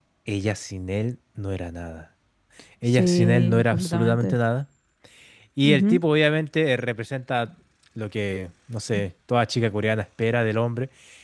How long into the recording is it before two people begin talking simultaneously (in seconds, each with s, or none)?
2.9 s